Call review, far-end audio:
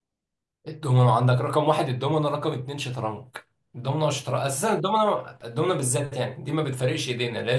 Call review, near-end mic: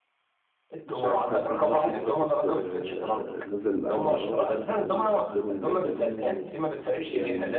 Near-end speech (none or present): present